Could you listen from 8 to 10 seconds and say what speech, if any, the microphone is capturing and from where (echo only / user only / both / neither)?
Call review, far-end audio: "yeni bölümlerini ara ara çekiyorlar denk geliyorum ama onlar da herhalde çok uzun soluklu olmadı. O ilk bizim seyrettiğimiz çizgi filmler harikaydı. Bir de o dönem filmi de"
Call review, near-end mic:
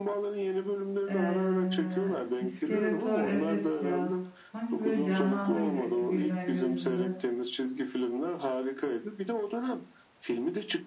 echo only